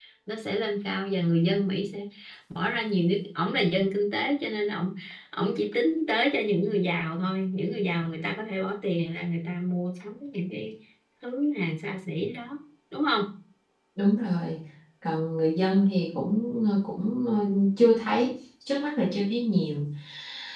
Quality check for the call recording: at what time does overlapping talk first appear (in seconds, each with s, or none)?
none